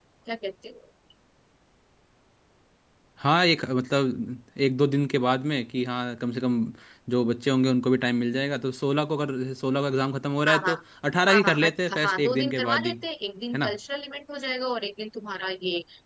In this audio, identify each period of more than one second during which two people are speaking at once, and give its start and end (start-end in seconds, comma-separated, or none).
11.3-12.9